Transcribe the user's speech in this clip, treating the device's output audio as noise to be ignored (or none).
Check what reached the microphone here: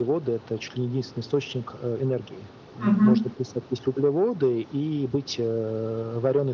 Мгм.